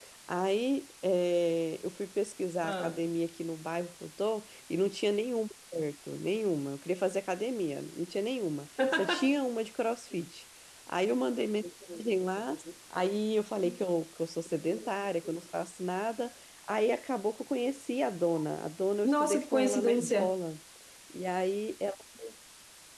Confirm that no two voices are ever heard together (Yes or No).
No